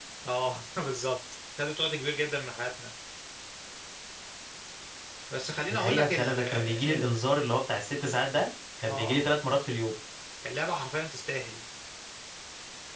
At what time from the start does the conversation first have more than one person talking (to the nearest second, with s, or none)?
6 s